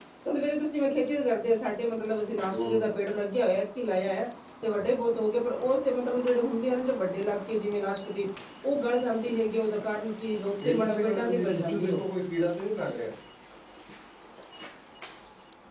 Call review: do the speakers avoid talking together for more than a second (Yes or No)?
No